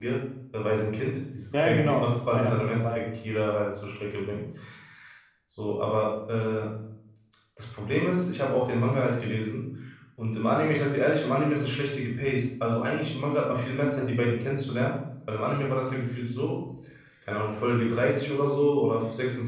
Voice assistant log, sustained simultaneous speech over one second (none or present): present